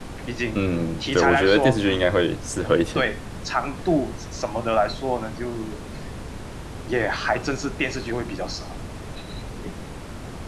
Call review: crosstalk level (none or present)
present